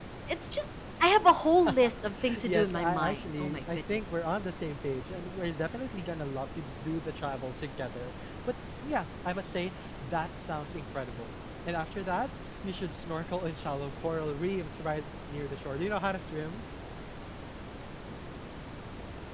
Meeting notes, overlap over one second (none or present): present